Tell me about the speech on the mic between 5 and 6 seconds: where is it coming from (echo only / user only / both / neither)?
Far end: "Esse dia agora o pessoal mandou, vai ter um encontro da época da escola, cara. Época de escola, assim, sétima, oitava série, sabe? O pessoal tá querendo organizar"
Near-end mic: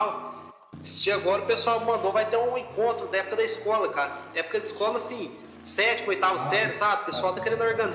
echo only